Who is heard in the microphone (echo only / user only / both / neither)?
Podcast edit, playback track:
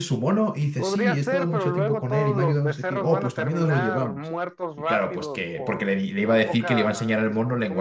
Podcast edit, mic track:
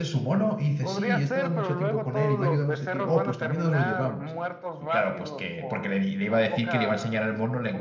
echo only